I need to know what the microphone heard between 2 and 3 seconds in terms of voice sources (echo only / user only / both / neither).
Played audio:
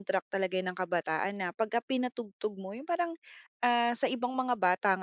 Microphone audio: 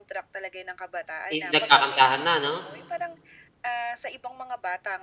both